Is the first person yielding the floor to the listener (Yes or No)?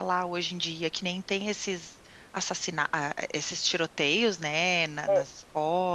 No